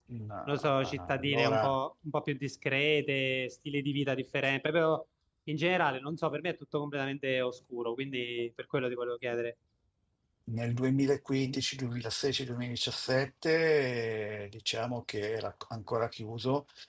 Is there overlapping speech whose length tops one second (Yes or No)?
Yes